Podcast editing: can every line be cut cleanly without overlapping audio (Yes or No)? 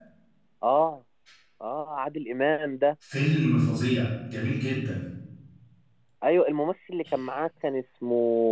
Yes